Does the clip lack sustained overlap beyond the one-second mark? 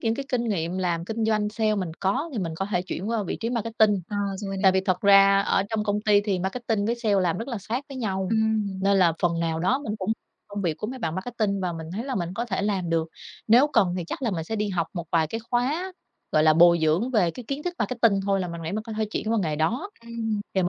Yes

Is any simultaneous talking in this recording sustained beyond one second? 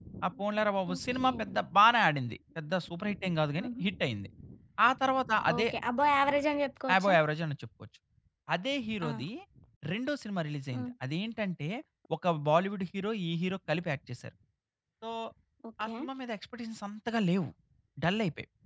No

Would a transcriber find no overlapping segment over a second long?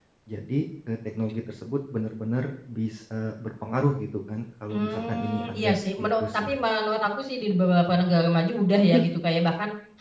No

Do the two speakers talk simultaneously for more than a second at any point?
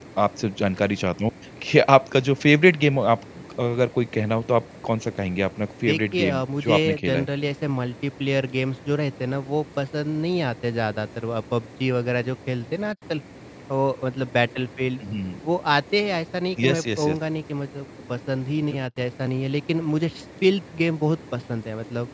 Yes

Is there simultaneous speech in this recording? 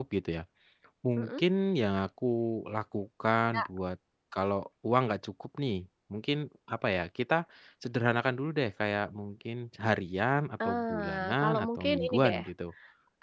Yes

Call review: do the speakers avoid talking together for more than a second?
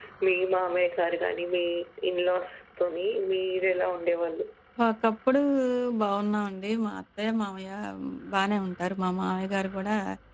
Yes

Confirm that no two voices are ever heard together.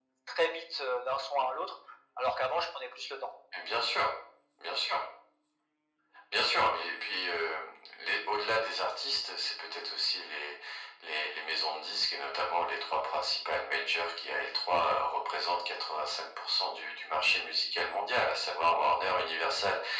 Yes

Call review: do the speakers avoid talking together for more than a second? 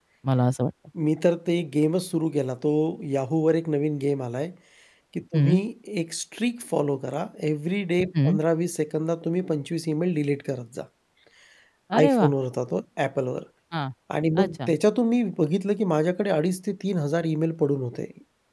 Yes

